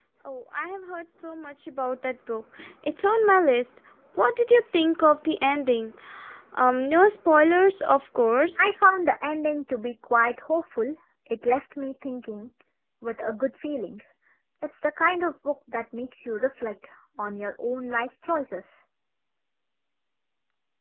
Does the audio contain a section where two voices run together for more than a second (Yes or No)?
No